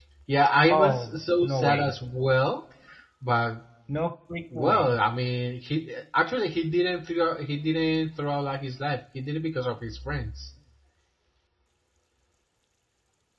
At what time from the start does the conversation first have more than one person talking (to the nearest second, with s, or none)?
1 s